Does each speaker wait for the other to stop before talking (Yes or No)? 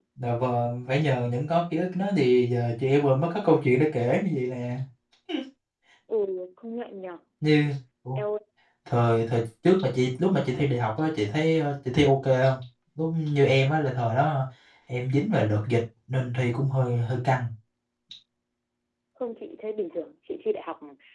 Yes